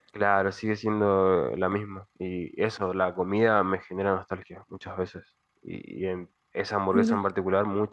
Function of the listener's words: listening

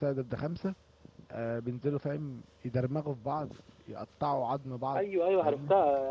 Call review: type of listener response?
taking over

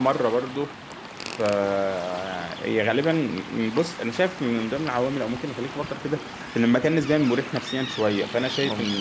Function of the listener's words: listening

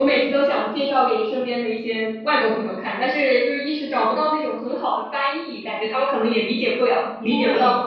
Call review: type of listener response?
taking over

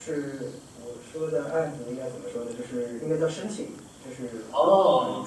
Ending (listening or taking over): listening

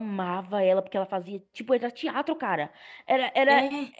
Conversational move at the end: listening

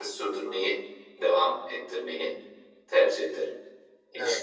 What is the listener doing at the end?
taking over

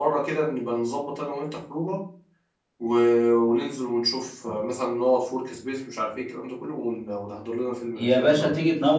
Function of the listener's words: taking over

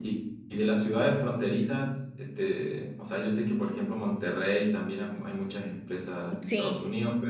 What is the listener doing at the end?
listening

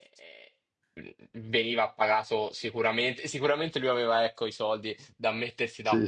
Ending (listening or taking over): listening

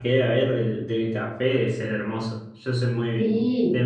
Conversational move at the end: taking over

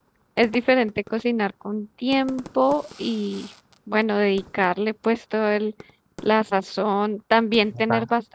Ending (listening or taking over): listening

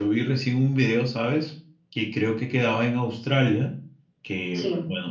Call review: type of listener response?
listening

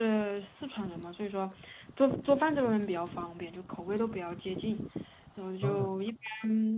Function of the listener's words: listening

